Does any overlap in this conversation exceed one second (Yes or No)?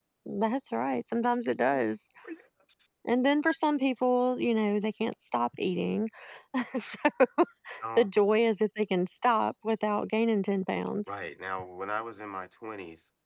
No